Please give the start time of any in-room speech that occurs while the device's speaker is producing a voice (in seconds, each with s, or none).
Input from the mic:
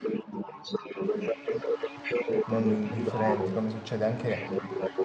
2.4 s